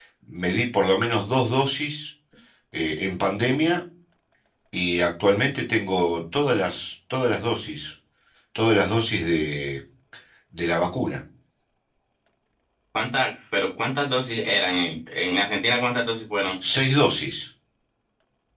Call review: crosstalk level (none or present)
none